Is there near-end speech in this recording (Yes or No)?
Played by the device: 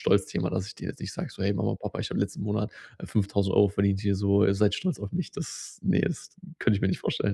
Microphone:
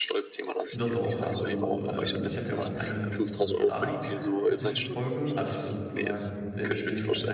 Yes